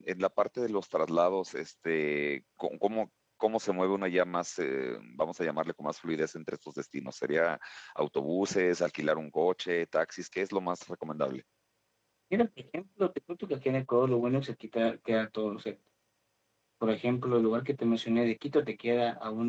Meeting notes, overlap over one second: none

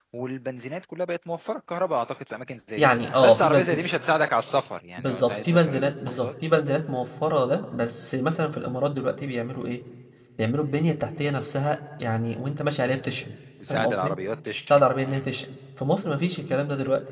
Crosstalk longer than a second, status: present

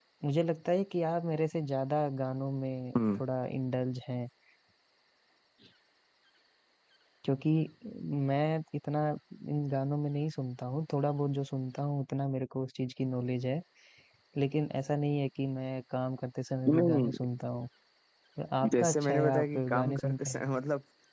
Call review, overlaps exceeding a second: present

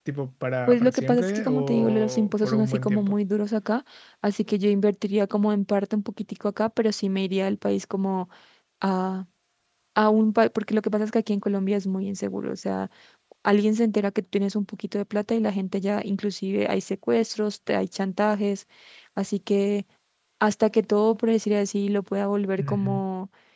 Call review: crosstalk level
present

